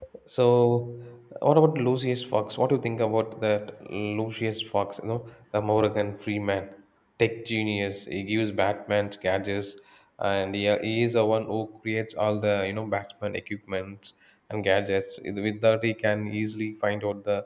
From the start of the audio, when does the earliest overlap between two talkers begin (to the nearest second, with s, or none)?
none